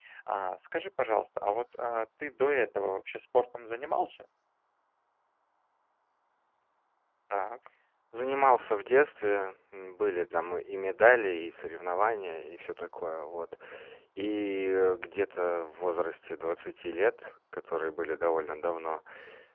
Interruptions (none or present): none